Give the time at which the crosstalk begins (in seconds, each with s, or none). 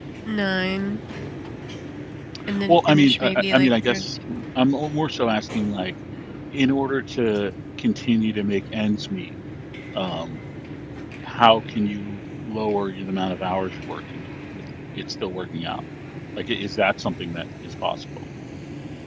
2.7 s